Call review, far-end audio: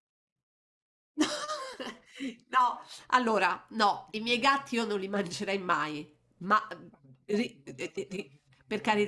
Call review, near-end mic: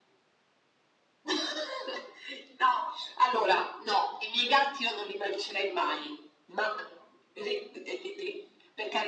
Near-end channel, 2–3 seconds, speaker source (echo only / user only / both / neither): echo only